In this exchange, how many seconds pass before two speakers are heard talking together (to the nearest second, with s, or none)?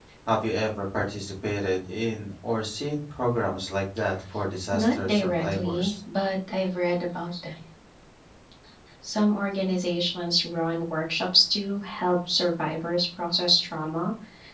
5 s